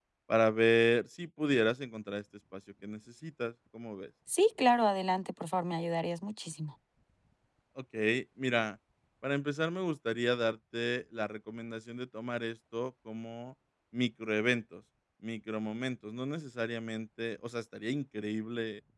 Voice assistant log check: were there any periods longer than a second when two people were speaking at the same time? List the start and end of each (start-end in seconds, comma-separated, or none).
none